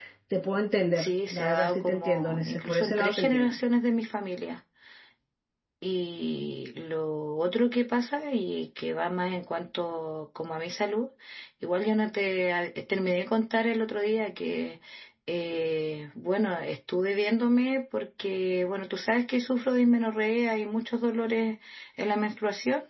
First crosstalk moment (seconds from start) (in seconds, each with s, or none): 1.0 s